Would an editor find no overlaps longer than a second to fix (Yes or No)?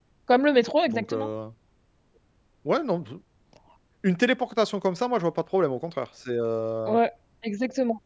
Yes